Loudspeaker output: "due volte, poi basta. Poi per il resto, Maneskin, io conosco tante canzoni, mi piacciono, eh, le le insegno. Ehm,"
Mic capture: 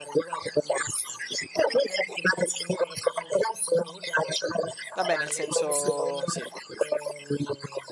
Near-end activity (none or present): present